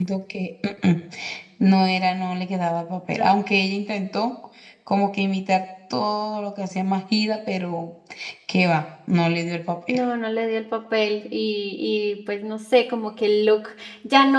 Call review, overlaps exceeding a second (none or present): none